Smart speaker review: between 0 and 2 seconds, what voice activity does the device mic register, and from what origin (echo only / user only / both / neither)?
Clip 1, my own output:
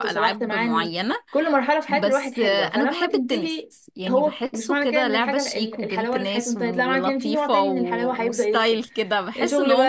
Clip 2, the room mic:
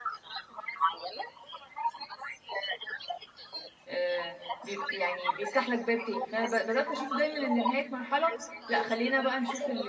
echo only